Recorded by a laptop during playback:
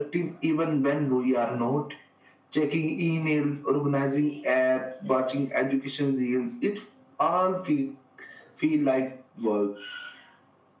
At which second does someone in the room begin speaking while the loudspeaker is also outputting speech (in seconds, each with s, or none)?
none